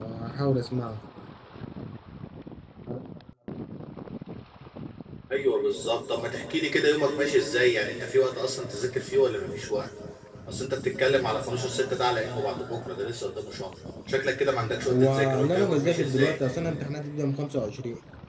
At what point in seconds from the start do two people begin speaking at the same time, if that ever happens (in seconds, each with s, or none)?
14.8 s